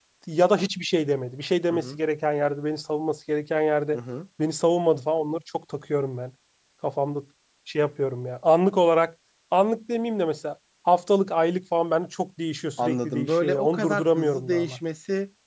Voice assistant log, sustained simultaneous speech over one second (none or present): present